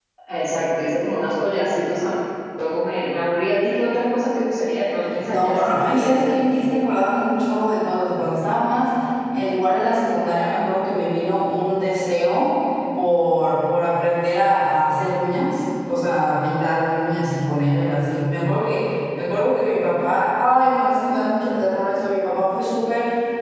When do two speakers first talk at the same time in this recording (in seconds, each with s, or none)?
5.3 s